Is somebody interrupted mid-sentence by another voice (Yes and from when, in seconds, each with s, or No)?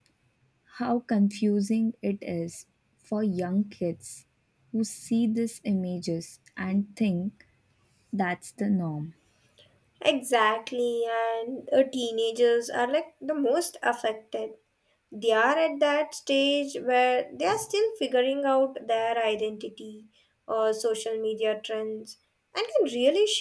No